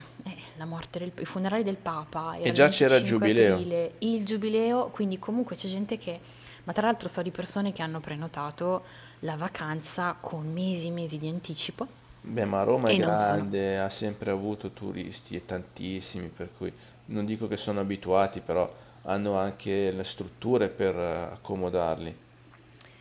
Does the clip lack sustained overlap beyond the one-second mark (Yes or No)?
No